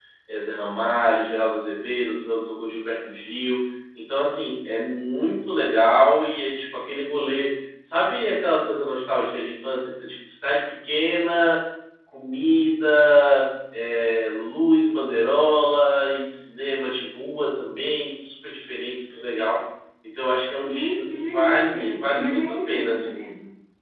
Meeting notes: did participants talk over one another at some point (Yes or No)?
Yes